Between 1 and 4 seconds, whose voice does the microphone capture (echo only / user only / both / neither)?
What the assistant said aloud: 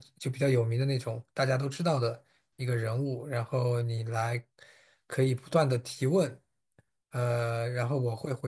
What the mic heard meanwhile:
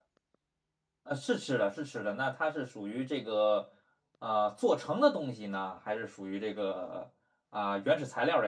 user only